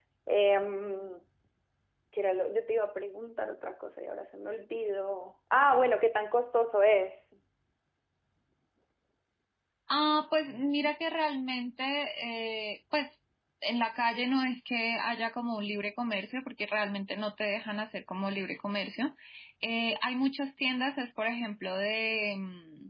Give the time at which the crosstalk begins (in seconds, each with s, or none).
none